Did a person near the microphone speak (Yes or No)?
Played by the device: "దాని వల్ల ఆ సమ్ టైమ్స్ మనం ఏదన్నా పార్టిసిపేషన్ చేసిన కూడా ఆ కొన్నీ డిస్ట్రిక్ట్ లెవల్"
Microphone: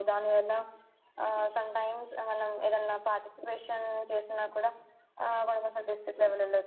No